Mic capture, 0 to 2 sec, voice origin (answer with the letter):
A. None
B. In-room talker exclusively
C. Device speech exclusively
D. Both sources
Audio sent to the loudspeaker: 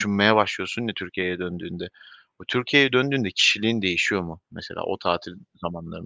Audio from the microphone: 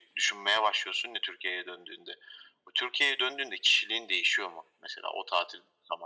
C